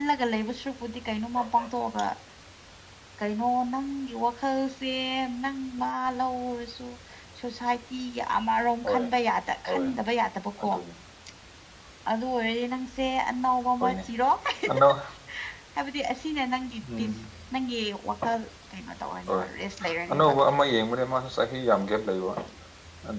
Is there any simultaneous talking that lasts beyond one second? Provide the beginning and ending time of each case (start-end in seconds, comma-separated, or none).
none